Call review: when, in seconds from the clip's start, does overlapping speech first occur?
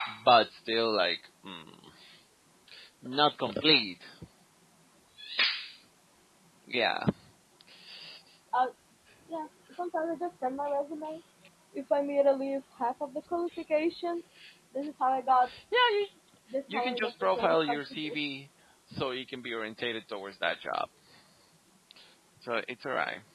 17 s

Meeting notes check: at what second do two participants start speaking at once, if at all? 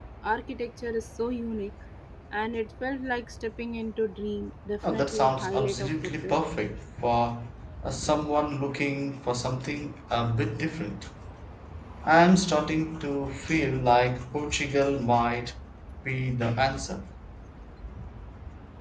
5 s

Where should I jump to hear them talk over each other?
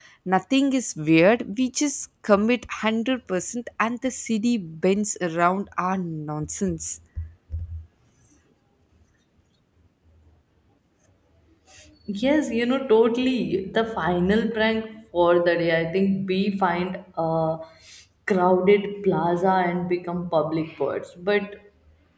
none

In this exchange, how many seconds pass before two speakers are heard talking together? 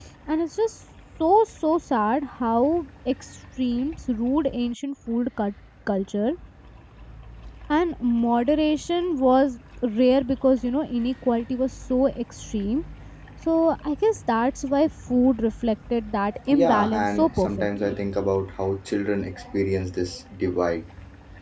16 s

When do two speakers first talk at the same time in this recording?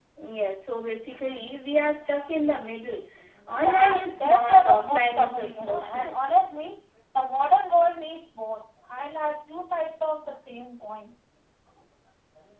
4 s

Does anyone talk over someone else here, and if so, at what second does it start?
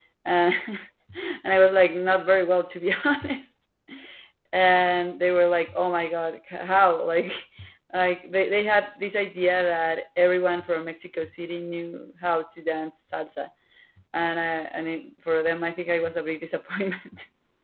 none

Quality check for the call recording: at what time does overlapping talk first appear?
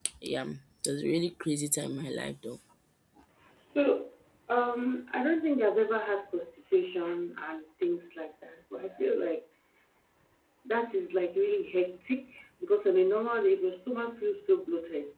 none

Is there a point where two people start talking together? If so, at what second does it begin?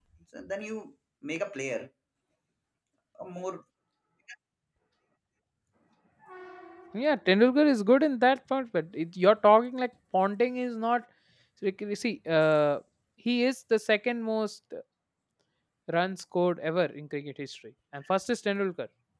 none

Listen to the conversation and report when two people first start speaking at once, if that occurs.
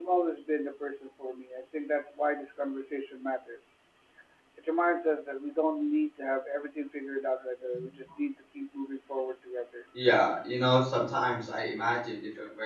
none

